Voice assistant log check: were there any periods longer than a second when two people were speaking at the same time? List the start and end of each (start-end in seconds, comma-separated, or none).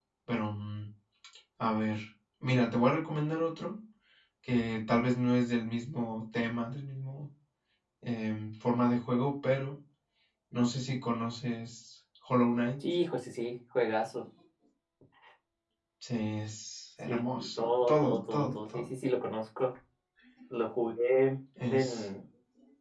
17.1-18.9